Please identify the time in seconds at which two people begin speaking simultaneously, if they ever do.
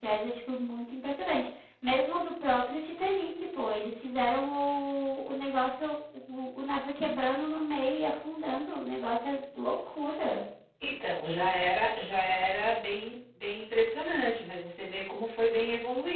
none

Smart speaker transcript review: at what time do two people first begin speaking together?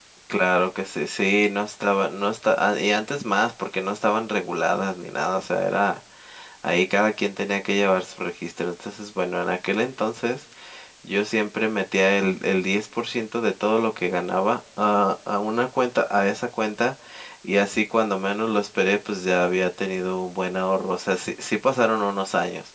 none

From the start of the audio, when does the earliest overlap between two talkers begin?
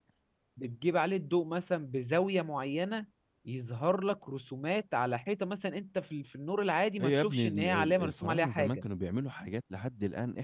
7.0 s

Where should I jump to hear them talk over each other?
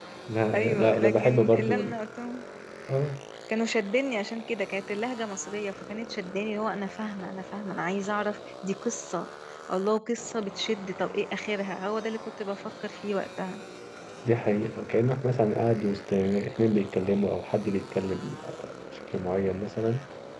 0.5 s

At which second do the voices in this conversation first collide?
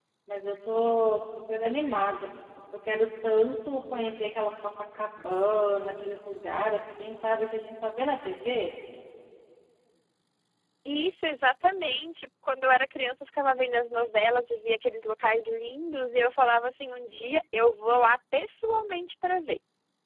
none

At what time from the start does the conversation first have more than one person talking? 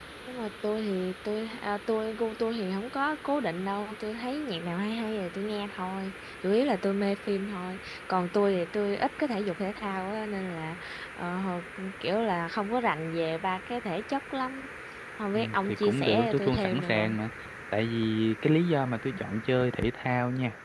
15.3 s

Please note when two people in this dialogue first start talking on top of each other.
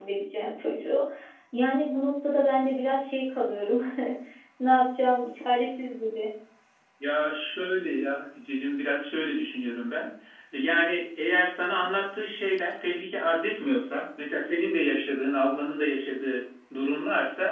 none

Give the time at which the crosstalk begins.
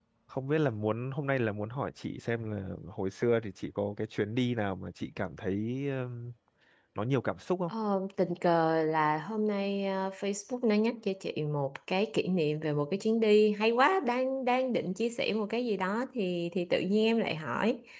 none

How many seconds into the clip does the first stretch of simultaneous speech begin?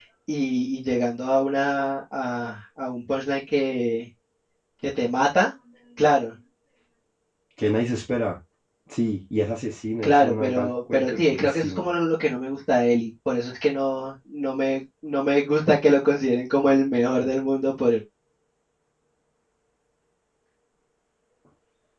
10.0 s

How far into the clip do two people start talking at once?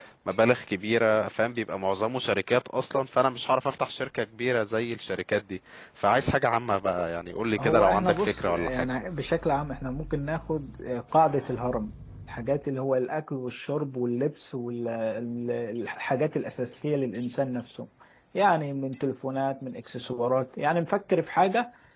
7.6 s

